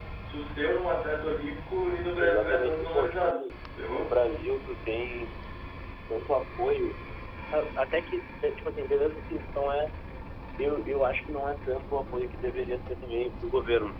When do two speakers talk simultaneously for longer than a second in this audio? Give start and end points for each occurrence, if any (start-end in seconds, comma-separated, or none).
2.2-3.5